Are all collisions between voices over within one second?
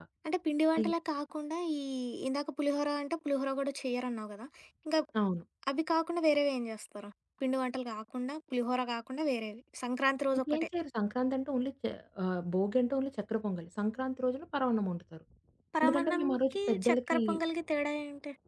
No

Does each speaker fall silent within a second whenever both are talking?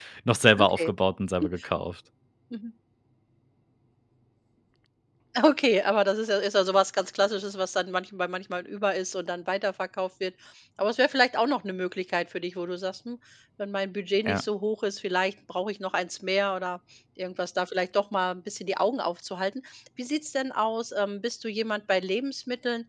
Yes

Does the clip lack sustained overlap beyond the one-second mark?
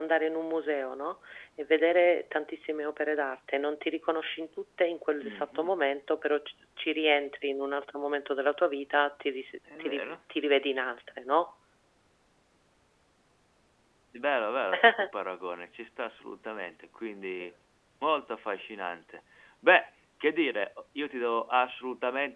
Yes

